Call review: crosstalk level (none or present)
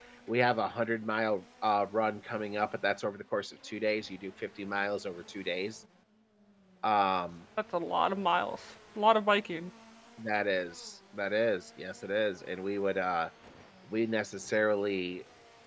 none